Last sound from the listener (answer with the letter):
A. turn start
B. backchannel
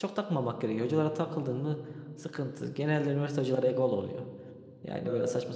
B